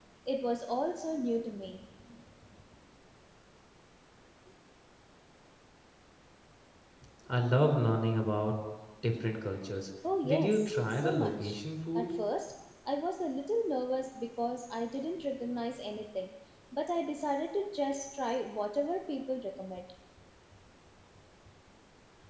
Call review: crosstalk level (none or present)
present